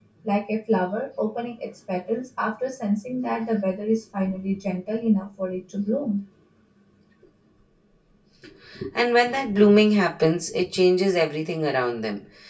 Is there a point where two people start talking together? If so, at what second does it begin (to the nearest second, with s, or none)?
none